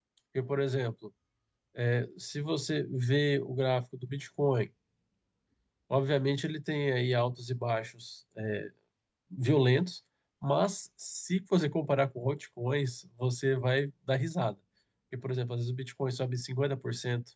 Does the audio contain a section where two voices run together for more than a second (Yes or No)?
No